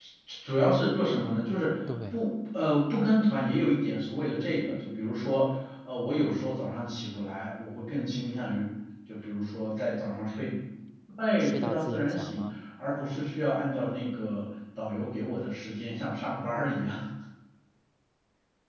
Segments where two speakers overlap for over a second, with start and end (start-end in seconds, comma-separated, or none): 11.4-12.6